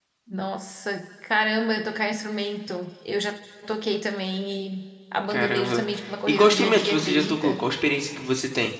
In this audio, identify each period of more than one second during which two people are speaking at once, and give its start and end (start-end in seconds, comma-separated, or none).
6.3-7.6